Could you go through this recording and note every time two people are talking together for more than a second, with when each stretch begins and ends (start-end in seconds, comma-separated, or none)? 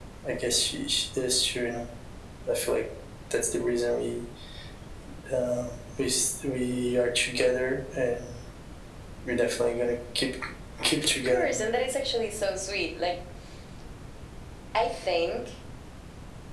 none